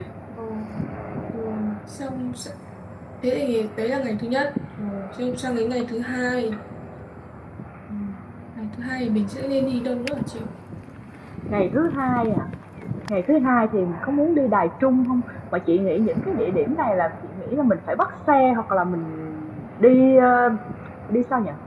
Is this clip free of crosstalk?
Yes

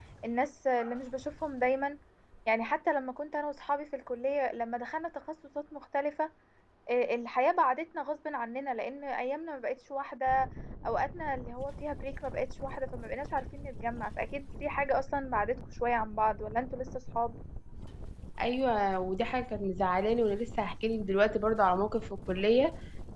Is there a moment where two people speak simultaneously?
No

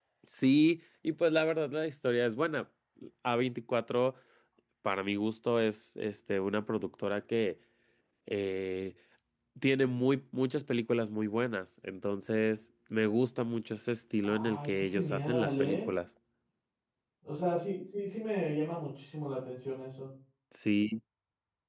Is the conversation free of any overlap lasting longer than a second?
No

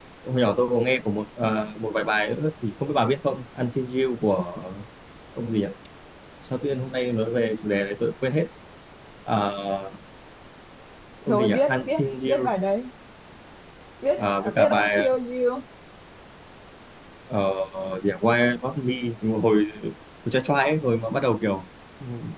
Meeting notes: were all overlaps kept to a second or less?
No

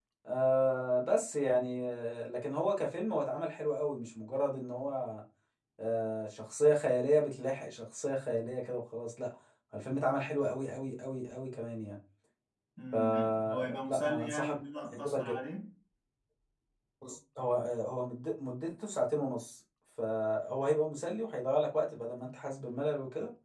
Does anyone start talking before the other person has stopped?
Yes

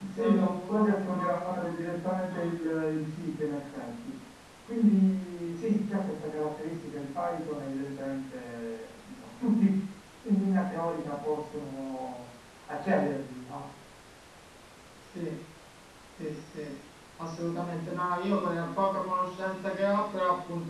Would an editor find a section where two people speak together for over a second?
Yes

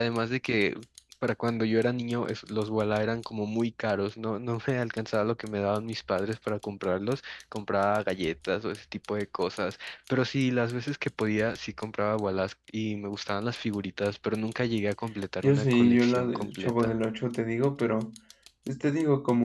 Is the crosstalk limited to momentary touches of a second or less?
No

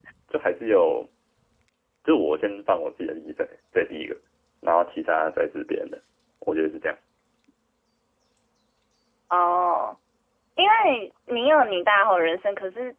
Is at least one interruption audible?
No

